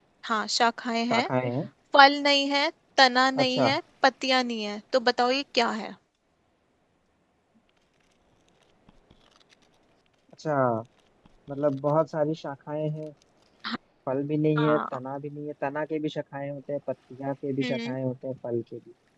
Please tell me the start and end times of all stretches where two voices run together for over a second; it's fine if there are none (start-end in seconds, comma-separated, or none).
none